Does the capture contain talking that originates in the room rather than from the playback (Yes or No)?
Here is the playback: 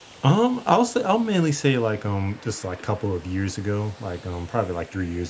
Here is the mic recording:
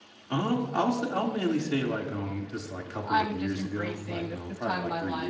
Yes